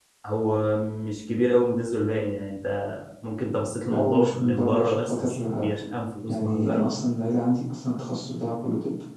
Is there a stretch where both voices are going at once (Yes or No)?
Yes